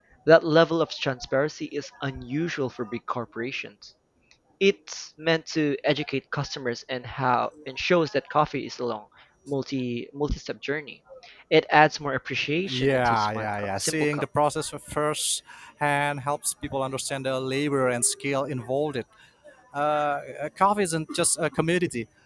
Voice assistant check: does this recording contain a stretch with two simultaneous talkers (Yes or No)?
Yes